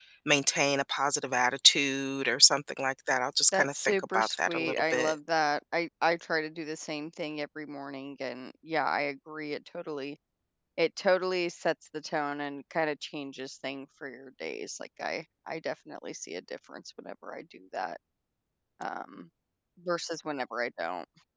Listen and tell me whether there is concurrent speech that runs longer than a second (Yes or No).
Yes